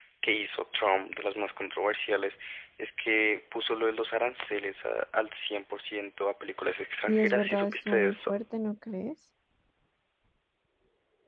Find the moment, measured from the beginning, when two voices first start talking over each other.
7.1 s

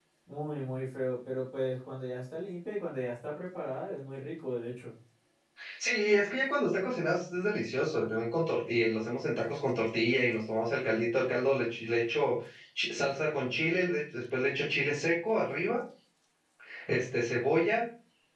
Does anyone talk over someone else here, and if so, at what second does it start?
none

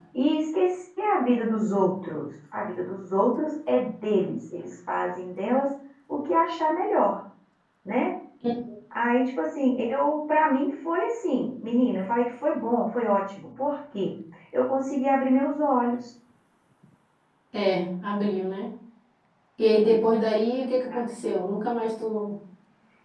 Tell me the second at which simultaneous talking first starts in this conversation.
none

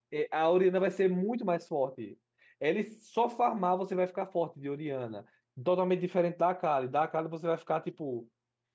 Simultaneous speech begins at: none

